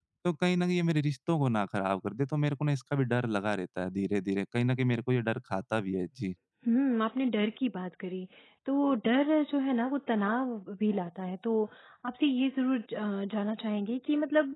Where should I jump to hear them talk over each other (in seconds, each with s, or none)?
none